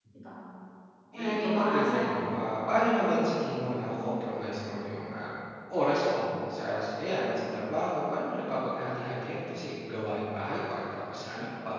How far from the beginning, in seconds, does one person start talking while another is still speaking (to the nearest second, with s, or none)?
1 s